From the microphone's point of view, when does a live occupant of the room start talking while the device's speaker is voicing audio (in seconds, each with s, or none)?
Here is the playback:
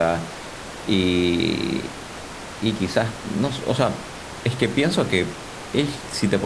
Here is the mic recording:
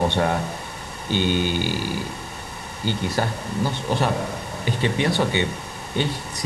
3.8 s